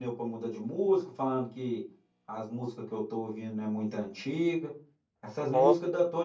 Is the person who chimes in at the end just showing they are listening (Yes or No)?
Yes